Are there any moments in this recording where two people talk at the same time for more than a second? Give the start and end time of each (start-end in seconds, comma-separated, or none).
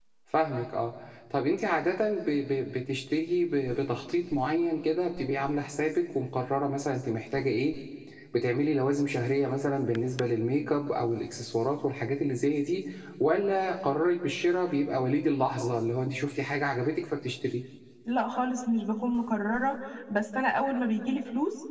none